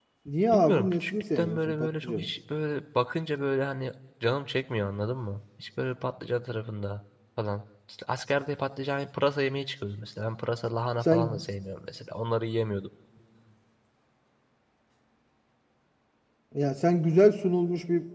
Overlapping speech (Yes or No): Yes